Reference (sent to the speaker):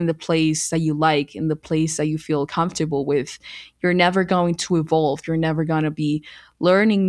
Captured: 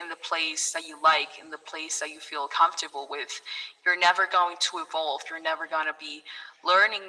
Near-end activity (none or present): none